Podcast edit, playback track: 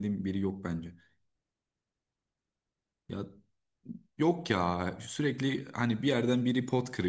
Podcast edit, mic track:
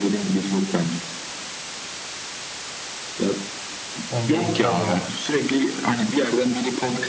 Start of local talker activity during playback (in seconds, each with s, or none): 4.1 s